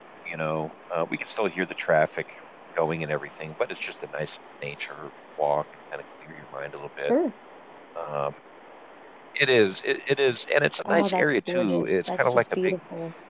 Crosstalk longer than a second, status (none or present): present